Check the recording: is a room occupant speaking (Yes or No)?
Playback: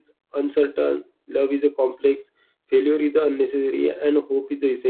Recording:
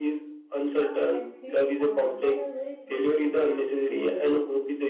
Yes